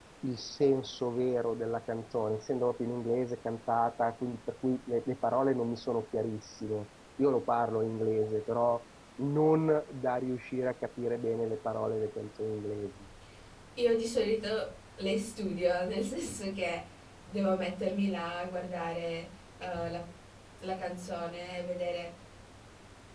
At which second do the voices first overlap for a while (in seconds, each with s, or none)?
none